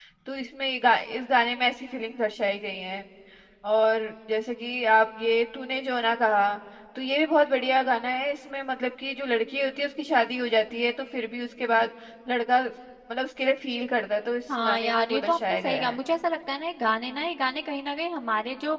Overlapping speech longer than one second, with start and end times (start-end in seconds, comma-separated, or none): 14.6-16.0